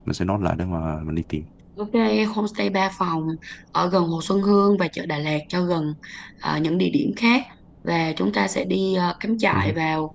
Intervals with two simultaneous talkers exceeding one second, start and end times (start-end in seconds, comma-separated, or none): none